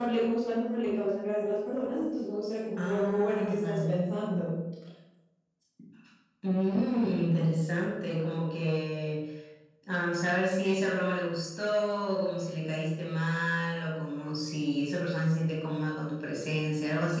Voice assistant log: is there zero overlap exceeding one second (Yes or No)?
No